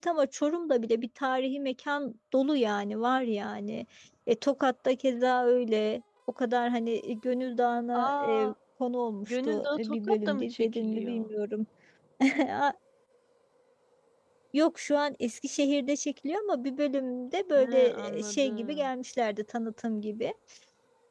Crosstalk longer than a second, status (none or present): present